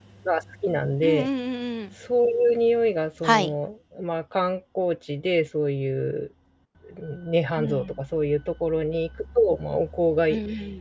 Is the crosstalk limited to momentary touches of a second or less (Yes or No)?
Yes